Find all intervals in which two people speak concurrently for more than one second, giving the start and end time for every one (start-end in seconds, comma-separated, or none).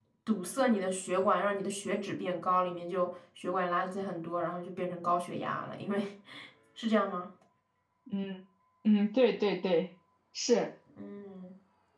none